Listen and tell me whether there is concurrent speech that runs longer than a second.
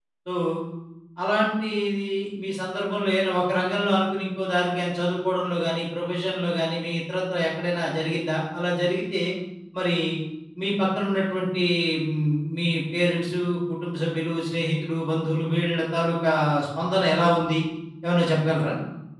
No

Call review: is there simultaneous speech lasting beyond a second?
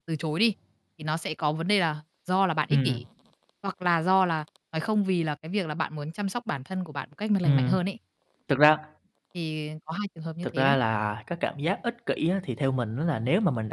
No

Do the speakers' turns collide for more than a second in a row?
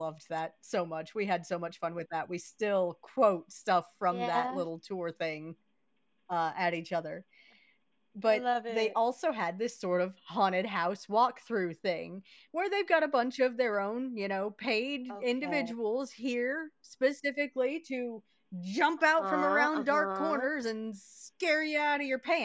Yes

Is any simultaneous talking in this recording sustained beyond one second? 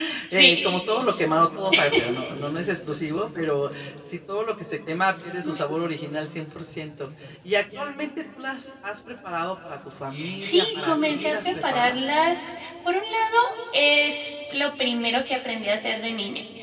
Yes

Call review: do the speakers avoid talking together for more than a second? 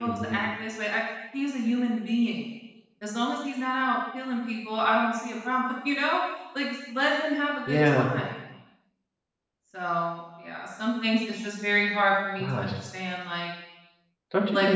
Yes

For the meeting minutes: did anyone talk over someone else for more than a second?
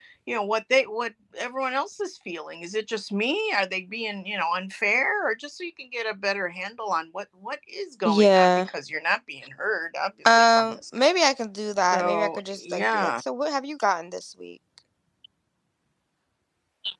Yes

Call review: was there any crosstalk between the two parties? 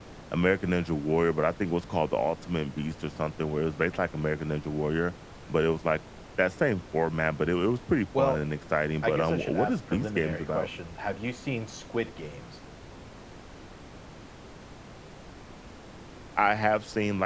Yes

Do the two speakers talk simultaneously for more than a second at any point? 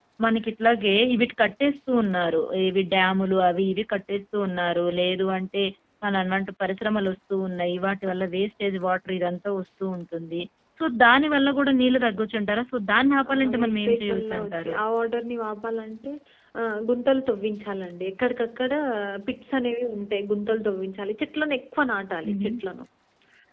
Yes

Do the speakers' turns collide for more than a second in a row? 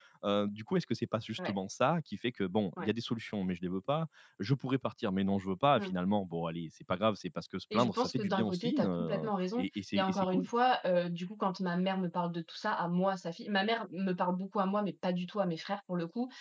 Yes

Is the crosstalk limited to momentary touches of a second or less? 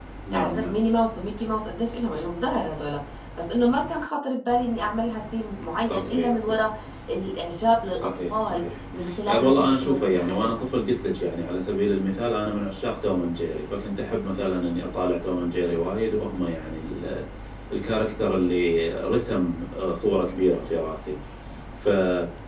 No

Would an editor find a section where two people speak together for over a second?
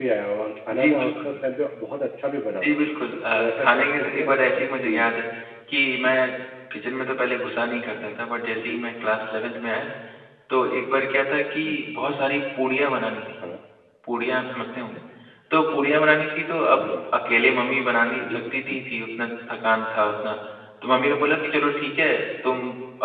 Yes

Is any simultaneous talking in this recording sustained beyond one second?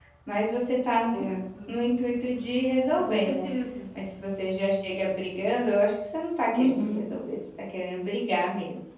No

